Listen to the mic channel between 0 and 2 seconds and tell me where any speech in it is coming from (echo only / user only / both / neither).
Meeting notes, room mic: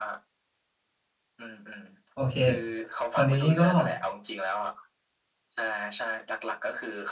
echo only